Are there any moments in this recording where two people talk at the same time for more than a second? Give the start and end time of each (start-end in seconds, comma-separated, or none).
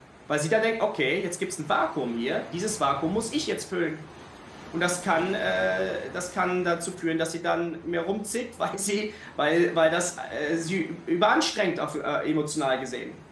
none